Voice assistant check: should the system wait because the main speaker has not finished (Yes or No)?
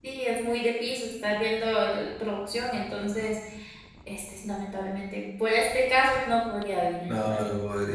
No